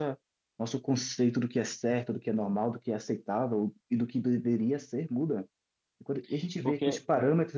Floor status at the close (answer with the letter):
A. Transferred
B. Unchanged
B